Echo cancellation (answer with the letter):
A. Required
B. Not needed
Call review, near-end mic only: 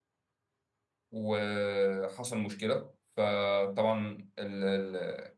B